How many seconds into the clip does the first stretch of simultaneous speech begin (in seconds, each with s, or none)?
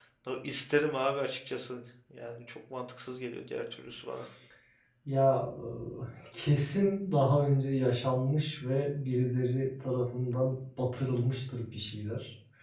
none